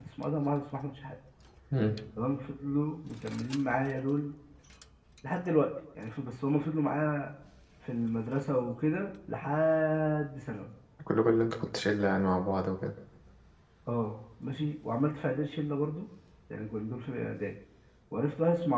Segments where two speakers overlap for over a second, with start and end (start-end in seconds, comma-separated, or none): none